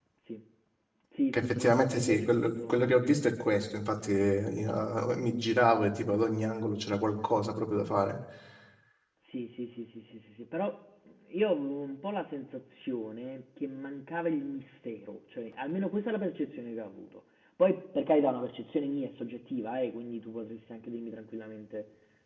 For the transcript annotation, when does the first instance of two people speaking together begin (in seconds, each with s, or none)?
1.3 s